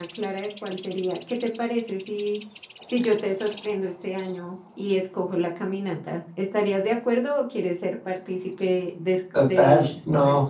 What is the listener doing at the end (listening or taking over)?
taking over